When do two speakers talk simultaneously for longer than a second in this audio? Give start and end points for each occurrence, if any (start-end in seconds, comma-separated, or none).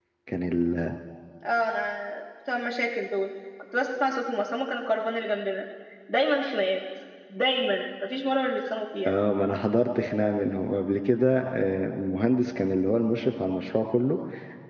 none